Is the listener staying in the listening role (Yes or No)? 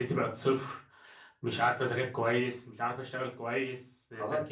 No